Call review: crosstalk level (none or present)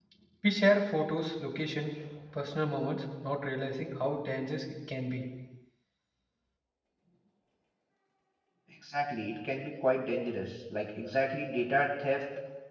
none